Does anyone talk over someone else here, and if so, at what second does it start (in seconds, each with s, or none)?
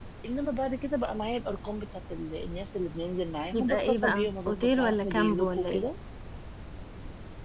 3.5 s